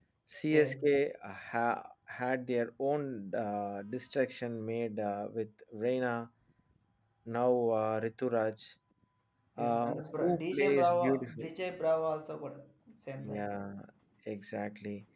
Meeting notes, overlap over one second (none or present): present